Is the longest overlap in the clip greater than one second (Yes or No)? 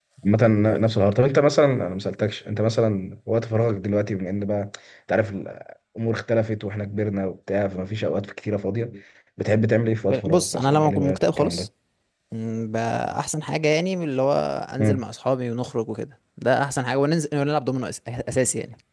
Yes